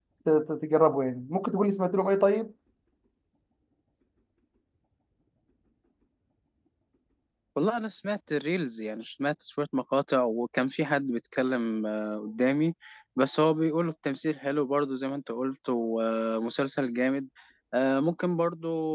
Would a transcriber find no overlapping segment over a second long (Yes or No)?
Yes